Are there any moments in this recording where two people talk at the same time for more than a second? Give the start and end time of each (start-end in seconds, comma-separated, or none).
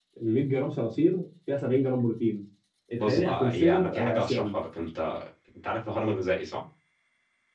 3.0-4.5